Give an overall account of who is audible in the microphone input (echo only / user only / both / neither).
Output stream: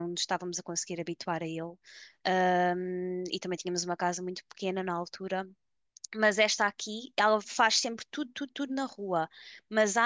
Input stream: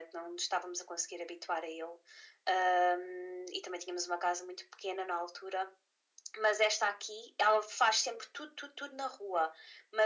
echo only